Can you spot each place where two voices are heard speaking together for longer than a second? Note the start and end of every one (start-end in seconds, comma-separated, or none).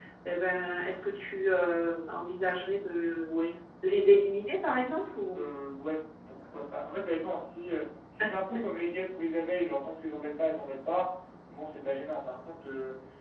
none